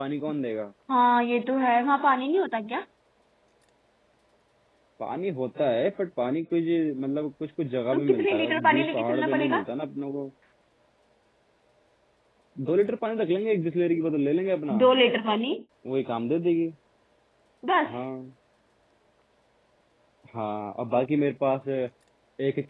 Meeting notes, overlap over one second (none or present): present